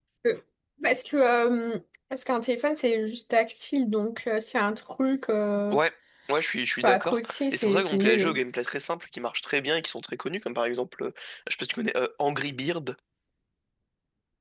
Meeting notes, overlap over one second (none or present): present